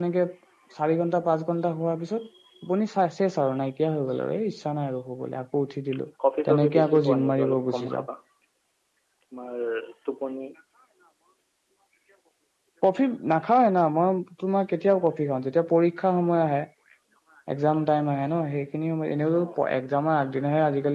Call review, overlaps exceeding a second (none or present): present